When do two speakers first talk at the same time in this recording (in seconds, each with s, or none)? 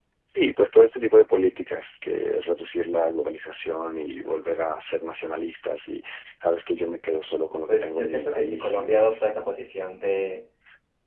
7.7 s